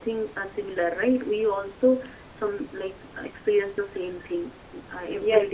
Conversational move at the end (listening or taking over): taking over